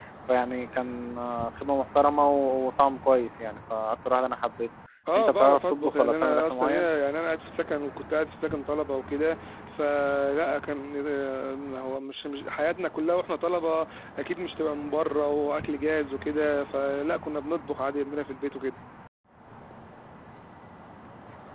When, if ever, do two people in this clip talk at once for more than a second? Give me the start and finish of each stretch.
5.2-6.9

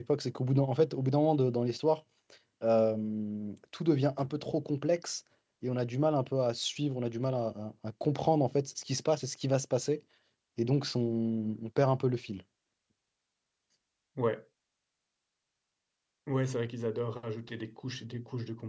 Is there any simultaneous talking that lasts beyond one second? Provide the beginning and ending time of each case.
none

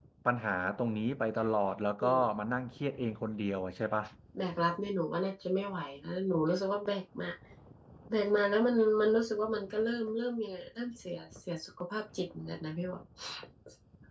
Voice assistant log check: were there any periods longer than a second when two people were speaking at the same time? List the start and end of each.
none

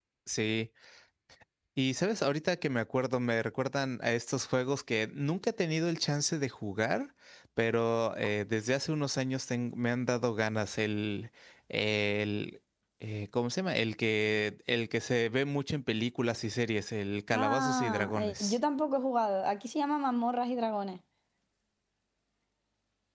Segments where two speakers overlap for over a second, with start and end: 17.3-18.6

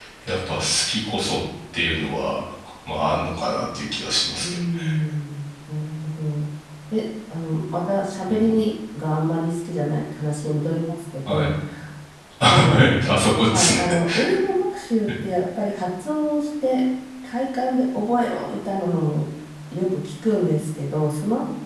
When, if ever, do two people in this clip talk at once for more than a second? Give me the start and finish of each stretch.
none

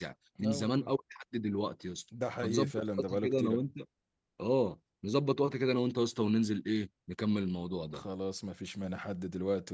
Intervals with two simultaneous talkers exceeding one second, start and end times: 2.4-3.6

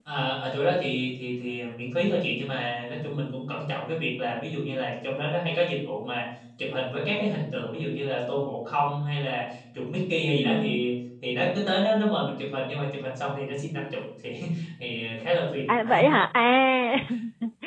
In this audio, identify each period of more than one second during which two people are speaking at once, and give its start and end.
none

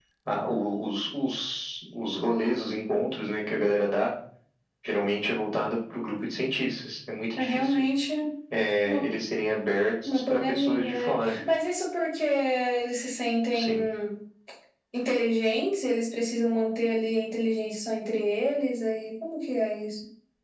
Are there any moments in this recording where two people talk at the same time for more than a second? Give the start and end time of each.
10.1-11.4

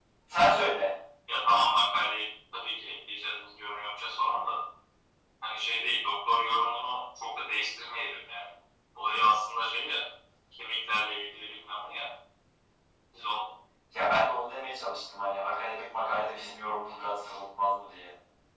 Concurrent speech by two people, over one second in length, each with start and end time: none

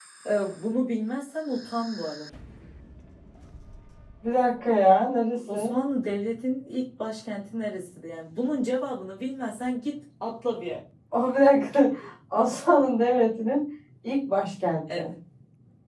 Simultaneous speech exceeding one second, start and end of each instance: none

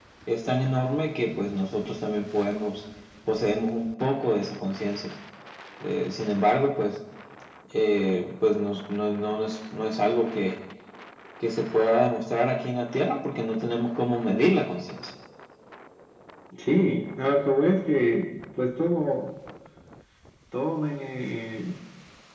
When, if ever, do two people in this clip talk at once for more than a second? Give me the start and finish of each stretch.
none

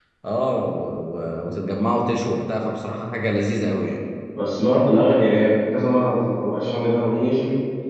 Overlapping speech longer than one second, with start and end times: none

